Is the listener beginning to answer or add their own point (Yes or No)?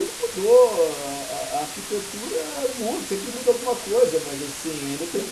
No